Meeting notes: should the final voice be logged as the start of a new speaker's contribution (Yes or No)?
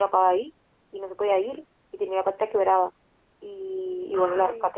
No